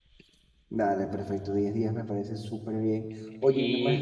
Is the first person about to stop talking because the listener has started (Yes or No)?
No